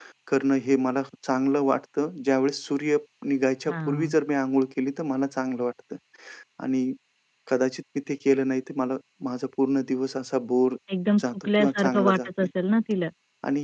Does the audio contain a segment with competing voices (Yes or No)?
Yes